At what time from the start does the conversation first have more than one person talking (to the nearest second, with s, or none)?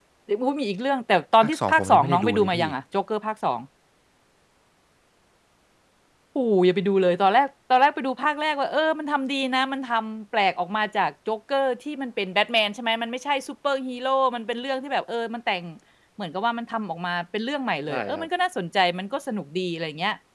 1 s